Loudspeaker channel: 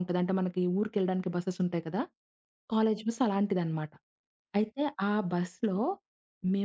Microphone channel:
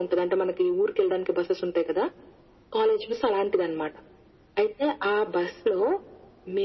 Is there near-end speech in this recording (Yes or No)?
No